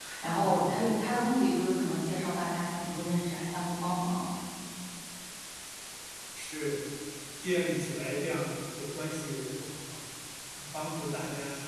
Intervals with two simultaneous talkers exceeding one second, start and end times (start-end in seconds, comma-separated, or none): none